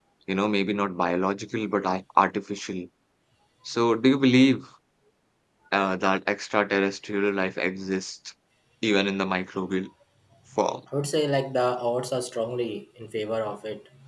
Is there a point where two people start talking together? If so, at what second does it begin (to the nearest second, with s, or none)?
none